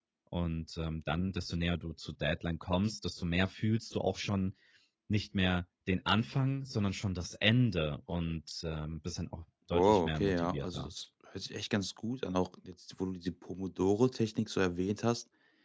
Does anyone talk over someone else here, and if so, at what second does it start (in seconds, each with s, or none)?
9.7 s